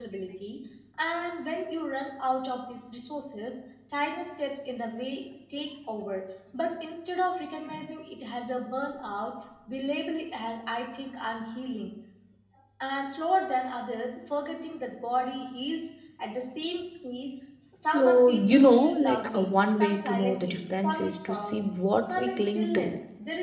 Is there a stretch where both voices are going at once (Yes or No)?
Yes